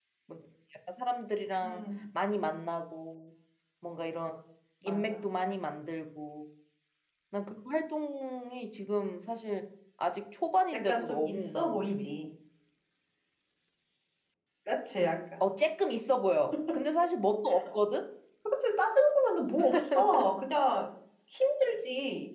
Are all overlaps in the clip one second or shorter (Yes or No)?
No